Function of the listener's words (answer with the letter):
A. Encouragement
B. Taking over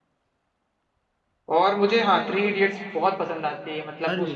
A